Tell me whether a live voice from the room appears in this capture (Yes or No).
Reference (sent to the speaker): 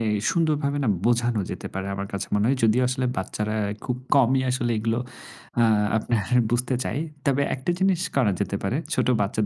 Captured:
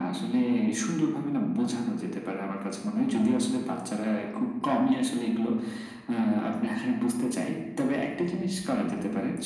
No